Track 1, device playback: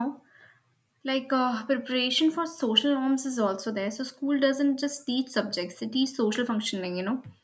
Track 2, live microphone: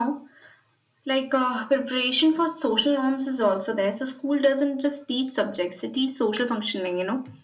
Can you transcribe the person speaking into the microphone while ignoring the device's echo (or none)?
none